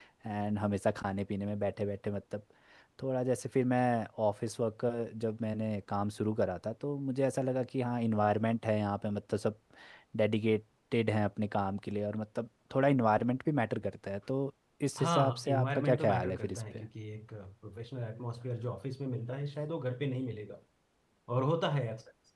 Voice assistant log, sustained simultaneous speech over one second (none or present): present